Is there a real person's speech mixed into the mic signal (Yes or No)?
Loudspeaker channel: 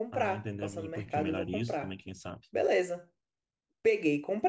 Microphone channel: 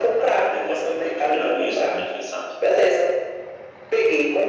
No